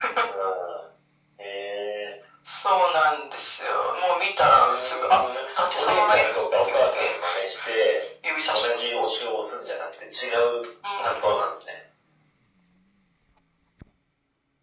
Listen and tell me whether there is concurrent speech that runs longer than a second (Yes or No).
Yes